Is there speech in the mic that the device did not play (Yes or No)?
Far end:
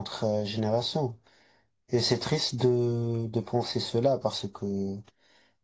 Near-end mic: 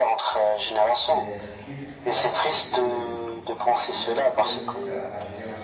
Yes